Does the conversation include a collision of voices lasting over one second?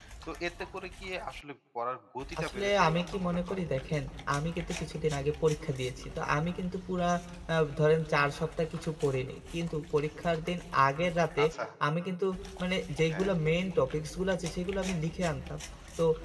Yes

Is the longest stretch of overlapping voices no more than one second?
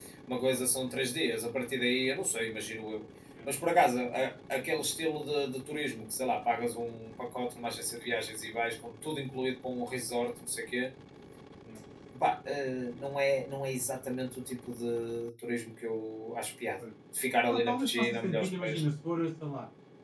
No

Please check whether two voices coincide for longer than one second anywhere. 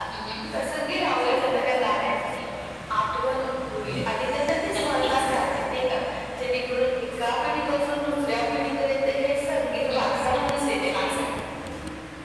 Yes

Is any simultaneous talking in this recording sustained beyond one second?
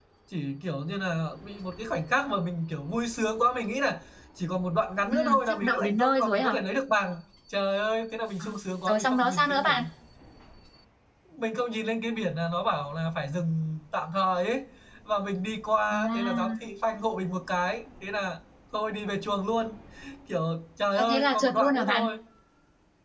Yes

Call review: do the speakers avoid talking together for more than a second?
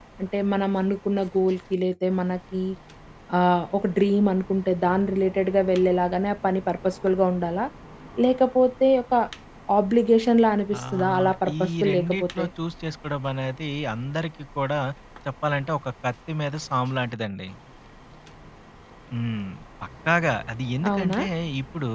No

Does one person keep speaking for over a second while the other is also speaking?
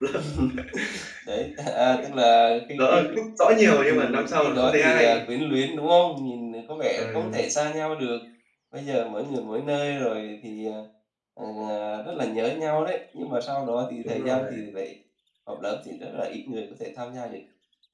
Yes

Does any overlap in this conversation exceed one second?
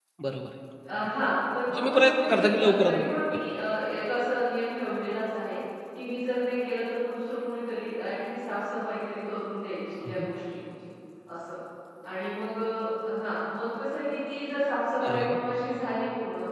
Yes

